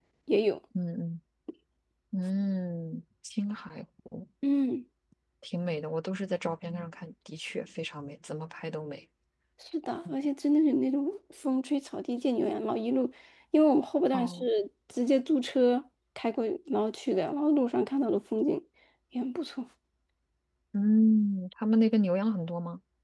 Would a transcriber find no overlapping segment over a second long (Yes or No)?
Yes